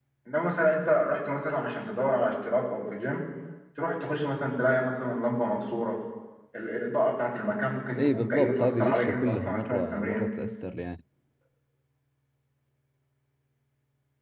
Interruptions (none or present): present